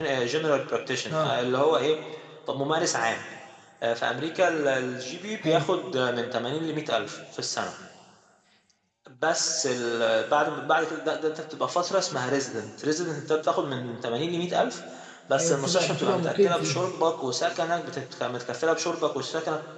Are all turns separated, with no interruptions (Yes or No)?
No